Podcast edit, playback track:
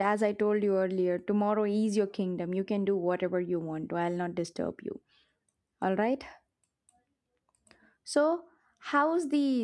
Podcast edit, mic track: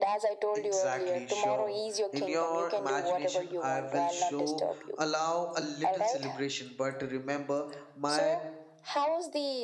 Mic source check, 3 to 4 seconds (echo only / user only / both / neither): both